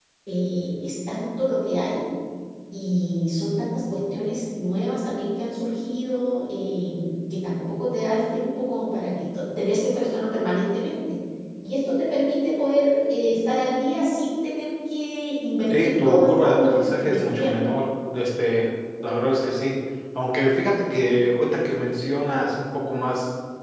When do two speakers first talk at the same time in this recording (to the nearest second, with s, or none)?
16 s